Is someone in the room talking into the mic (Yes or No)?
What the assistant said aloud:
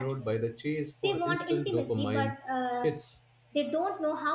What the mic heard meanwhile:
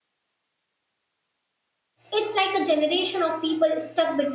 Yes